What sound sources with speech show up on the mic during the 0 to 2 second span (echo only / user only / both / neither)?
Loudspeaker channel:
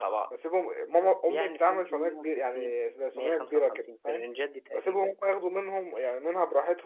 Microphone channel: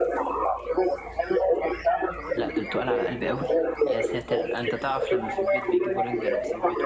echo only